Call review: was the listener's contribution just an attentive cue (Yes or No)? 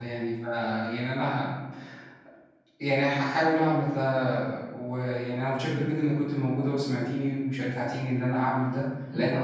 Yes